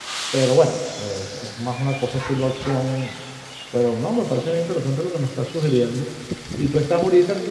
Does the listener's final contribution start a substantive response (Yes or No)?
No